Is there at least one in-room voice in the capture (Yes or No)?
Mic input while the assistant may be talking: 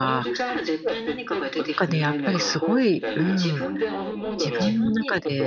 Yes